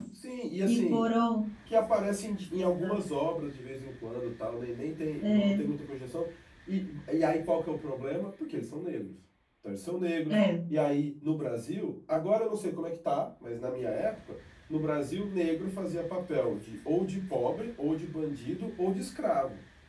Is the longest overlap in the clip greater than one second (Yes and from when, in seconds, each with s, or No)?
No